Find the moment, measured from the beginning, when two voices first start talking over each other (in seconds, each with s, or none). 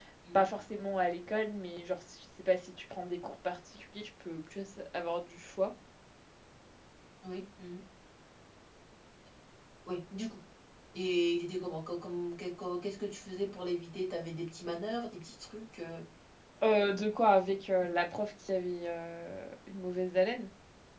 none